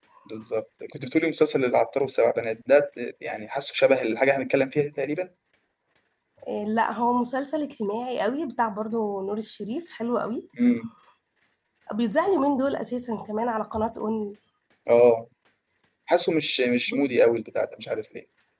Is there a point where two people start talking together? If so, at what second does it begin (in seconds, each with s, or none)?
none